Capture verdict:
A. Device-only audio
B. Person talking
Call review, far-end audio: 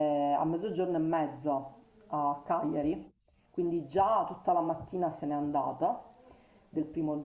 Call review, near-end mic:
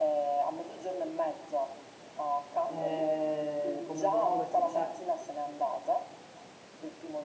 B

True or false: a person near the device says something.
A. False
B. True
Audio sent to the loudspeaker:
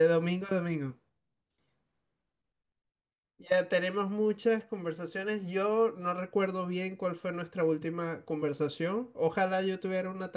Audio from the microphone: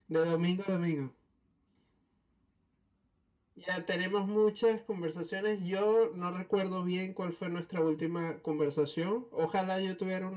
A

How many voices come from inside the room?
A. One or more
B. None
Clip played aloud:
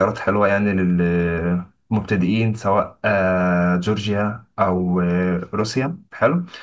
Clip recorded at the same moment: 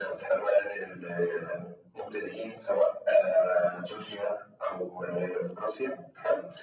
B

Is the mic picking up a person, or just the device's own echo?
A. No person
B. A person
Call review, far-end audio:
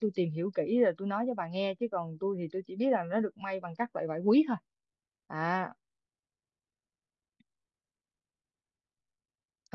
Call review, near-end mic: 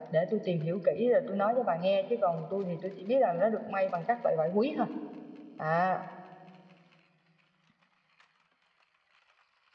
A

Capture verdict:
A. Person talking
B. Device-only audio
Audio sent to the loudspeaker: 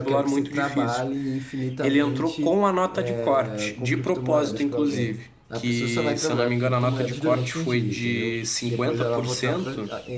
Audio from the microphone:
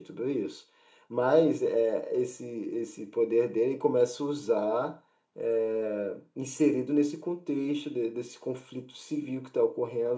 A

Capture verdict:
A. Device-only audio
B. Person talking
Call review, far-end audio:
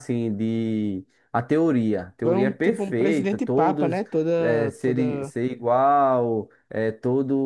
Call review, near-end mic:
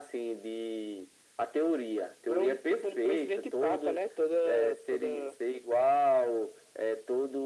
A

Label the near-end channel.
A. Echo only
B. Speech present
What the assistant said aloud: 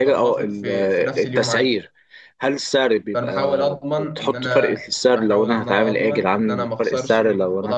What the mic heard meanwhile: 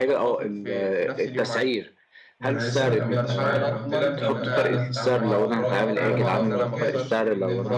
B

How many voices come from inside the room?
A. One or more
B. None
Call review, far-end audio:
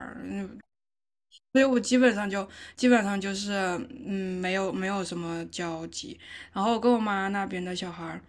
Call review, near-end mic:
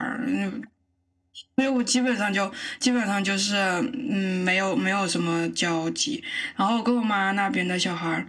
B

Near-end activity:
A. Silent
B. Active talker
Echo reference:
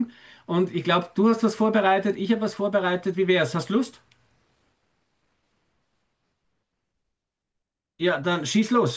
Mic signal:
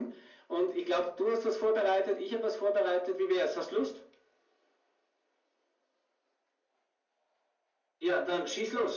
A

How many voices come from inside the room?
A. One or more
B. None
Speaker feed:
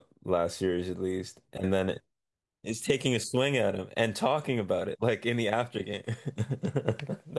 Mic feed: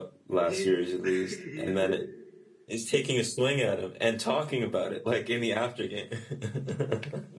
A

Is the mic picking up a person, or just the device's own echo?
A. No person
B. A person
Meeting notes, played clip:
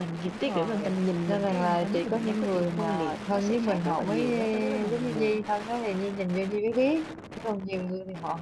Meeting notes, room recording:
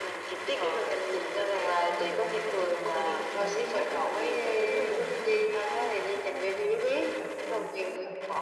B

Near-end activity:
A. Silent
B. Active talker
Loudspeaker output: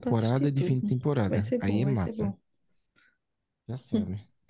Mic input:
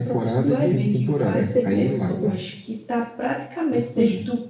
B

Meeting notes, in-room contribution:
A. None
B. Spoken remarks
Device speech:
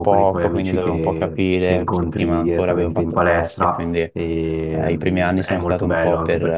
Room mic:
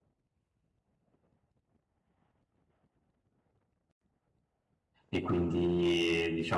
B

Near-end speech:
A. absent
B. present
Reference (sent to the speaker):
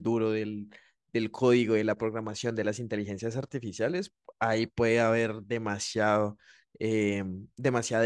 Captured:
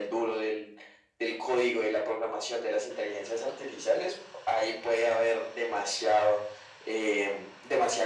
A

